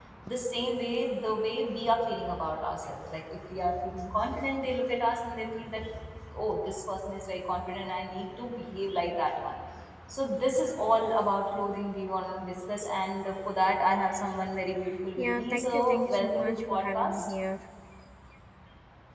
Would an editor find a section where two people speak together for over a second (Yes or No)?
Yes